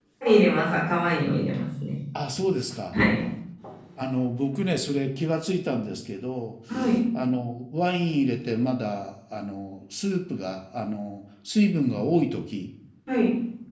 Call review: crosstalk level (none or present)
none